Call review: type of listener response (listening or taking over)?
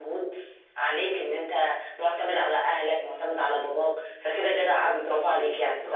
taking over